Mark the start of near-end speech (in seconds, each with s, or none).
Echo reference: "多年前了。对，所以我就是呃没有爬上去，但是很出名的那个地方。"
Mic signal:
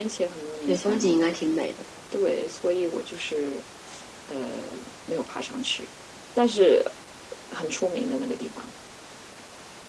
0.7 s